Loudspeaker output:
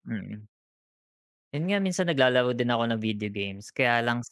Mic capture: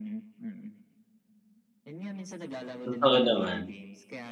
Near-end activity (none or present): present